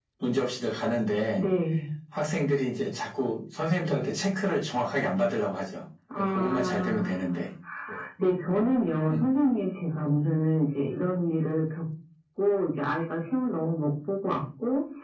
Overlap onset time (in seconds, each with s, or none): 6.2 s